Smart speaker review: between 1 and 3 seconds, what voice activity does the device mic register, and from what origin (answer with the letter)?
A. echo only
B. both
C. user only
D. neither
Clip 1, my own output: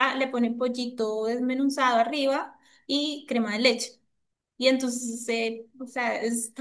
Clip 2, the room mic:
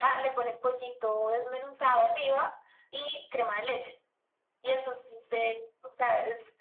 A